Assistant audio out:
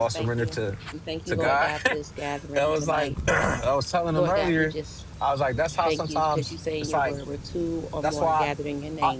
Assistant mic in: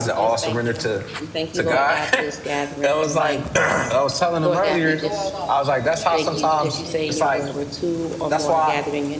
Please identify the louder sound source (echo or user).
echo